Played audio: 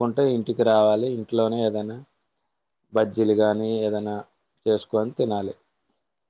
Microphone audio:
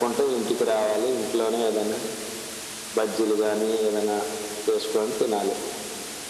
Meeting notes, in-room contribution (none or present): none